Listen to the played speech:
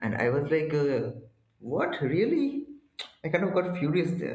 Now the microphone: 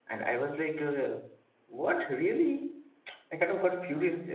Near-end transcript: none

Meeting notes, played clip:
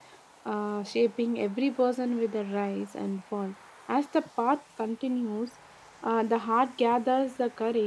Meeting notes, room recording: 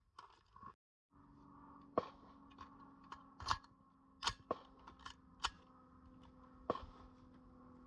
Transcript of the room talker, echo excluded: none

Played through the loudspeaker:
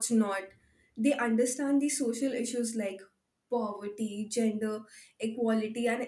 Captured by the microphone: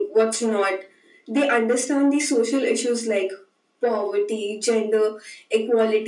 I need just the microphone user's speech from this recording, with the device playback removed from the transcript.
none

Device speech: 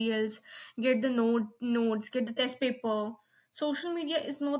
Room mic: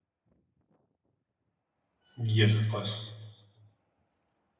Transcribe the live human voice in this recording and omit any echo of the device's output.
Yes, of course.

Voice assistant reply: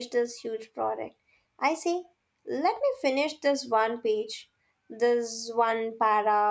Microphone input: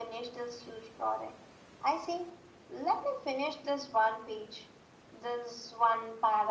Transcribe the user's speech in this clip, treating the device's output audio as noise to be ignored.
none

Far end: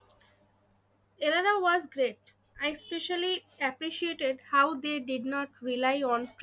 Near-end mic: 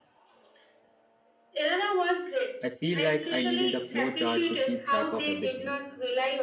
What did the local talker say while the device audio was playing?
I feel like I needed a flowchart to keep track of everything.

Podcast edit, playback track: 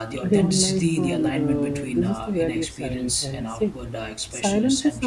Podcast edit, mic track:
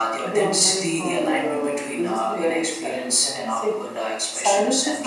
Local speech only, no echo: none

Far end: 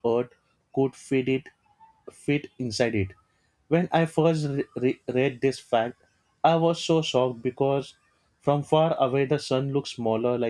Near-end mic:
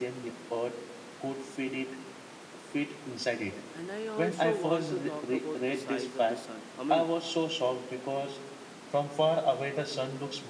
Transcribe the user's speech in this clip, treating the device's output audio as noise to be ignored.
And I also want to talk about the size of the sun. I mean,

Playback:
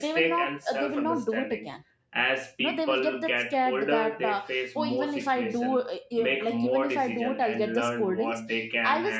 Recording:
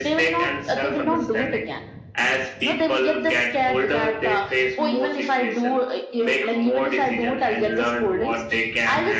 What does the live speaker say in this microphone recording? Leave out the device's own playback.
none

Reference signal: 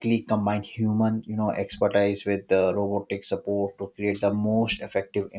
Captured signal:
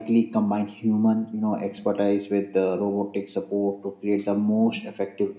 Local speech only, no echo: none

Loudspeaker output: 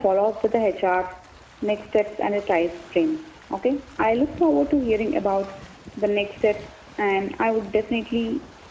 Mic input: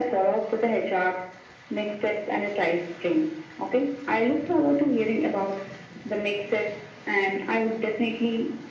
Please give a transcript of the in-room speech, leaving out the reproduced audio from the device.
none

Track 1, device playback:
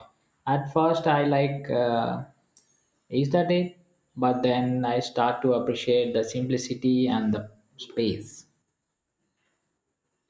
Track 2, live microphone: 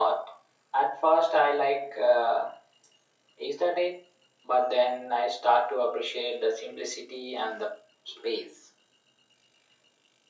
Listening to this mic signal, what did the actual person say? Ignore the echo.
none

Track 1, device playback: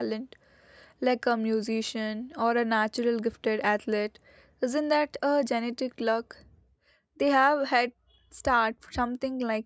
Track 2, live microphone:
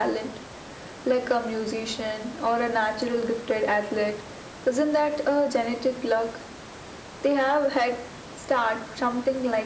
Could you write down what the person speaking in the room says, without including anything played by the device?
none

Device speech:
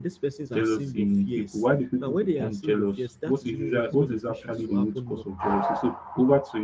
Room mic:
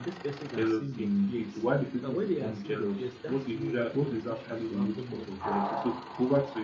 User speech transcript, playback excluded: none

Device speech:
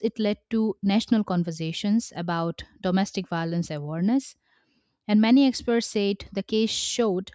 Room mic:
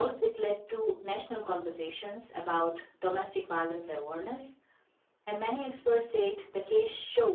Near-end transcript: none

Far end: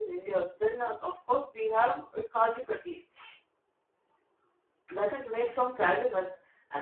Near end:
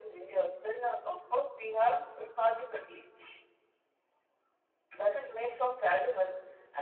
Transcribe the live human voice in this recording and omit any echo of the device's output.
none

